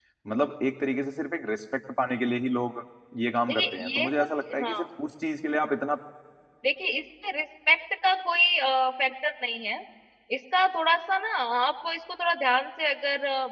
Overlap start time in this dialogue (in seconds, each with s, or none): 3.4 s